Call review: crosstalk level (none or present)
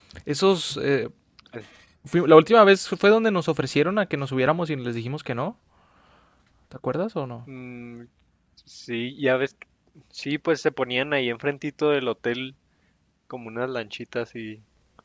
none